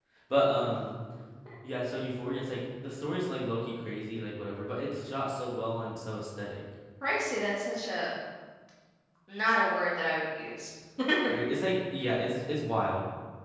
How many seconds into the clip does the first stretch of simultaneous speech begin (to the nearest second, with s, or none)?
none